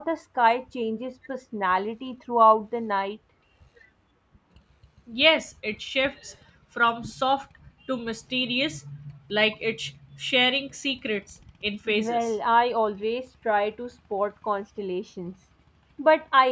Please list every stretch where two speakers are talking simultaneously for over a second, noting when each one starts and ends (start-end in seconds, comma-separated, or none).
none